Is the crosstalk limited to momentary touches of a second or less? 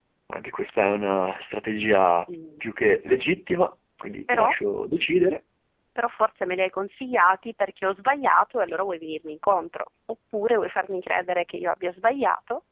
Yes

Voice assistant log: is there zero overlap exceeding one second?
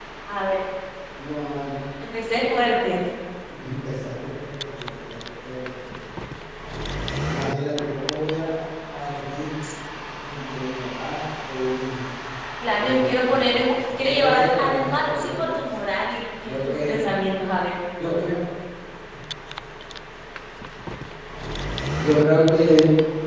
No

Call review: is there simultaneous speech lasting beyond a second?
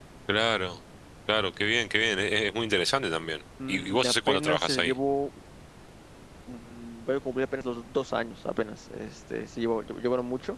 Yes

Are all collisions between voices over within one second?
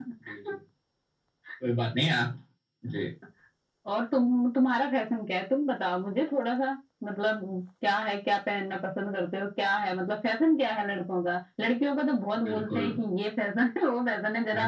Yes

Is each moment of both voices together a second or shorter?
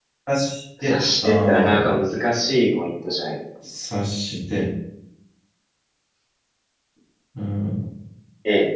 No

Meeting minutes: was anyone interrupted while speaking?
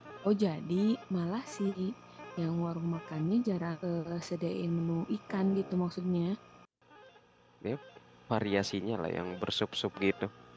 No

